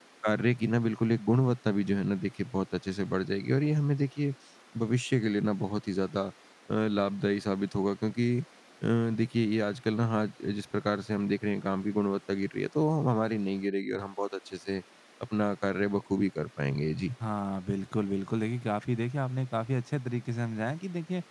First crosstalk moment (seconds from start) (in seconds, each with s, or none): none